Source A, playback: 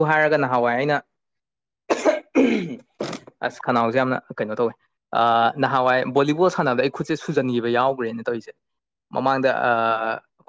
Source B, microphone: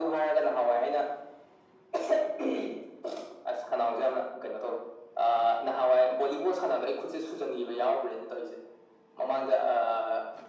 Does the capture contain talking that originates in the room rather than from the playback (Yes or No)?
No